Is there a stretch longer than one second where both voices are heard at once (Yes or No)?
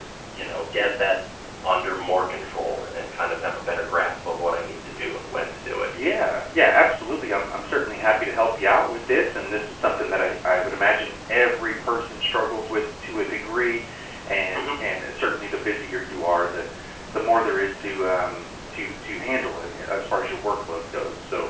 No